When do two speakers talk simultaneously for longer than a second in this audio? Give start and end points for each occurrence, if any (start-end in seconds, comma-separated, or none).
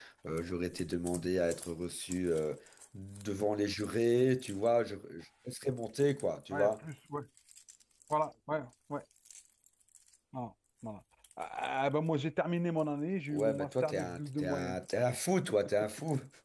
13.3-14.8